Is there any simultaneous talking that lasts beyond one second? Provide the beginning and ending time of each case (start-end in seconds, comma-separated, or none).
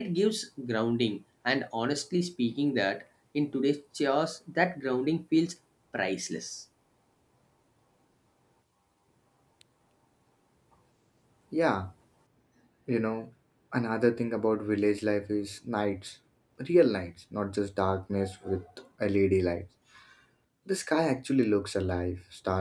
none